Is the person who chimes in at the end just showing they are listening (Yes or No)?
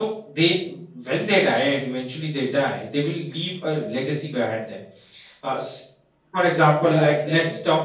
Yes